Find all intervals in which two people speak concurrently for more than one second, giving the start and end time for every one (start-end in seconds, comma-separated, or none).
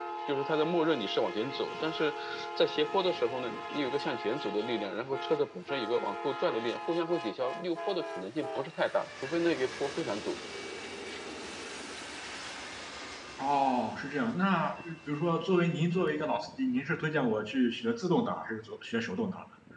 none